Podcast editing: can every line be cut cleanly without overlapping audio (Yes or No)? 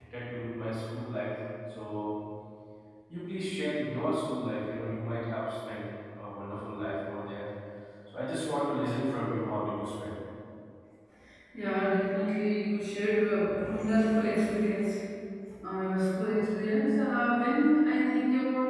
Yes